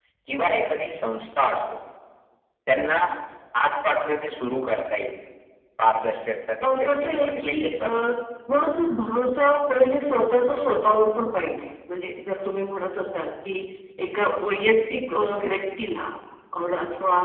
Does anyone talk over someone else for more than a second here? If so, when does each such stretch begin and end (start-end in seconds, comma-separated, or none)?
6.6-7.9